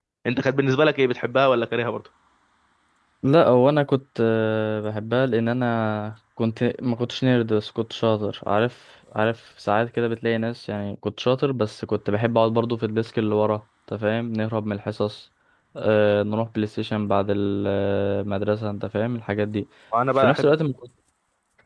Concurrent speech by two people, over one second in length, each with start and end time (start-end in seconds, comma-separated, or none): none